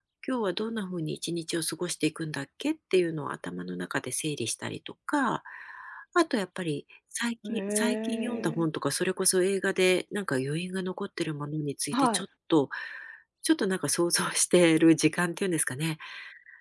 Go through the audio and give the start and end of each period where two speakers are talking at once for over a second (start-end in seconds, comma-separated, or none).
7.4-8.7